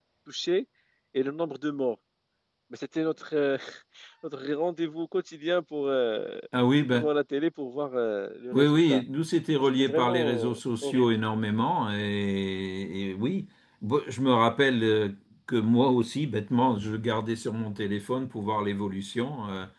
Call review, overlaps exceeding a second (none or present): present